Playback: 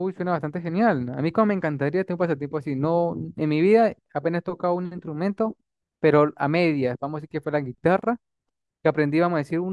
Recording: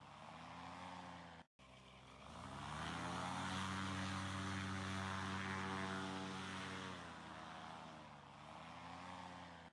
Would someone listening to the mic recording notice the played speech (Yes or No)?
No